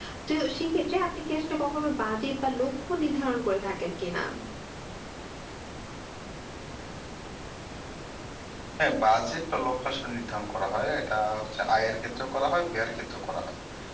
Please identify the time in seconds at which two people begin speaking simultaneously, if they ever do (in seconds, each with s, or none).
none